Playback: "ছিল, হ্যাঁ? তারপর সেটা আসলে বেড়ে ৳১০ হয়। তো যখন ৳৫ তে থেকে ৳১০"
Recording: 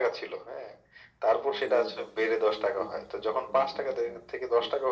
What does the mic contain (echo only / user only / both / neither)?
both